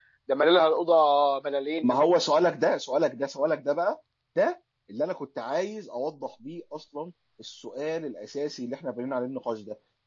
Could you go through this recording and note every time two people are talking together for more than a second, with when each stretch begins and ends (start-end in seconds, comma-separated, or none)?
none